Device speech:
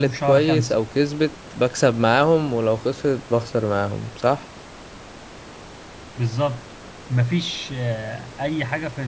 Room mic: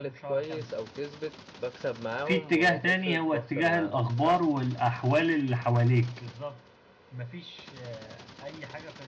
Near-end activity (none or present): present